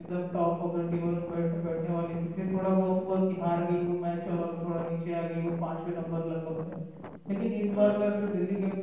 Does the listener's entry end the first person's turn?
No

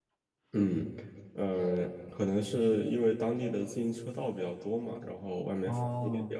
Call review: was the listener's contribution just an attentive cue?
No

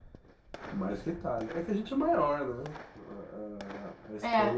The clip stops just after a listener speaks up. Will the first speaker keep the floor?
Yes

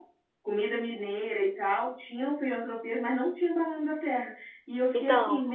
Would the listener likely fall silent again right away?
Yes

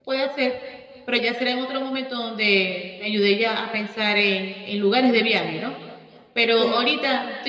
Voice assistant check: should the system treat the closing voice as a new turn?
No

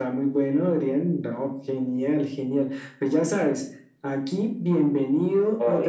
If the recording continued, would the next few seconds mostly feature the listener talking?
No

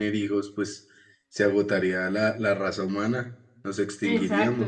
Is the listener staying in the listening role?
No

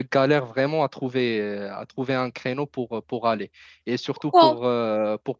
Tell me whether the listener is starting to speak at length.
No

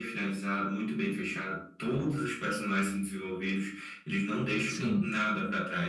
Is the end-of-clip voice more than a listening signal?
No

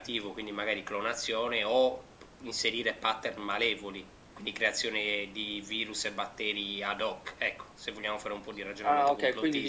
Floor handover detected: Yes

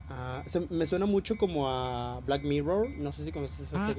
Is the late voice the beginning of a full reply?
Yes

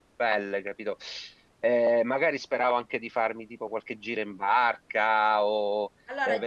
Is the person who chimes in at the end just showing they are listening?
No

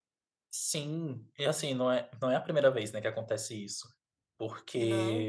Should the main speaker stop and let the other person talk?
No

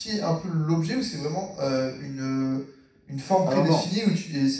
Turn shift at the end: No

